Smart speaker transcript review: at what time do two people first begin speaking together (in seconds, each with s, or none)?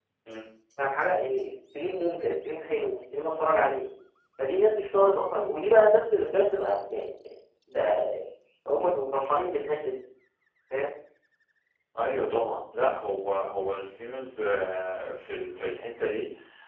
none